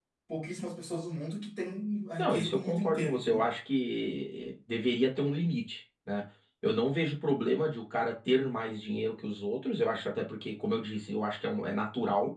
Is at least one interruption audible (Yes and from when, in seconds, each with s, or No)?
Yes, from 2.2 s